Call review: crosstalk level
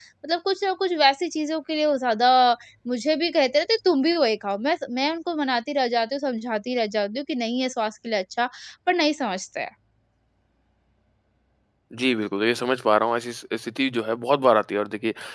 none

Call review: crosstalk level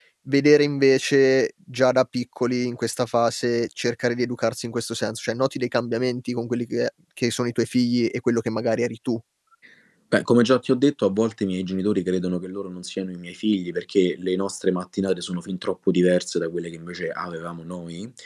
none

